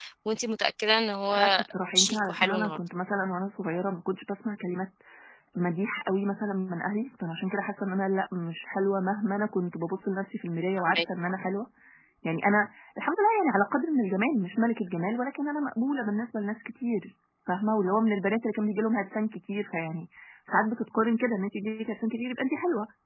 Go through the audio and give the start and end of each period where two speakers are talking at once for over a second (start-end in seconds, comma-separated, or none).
1.3-2.8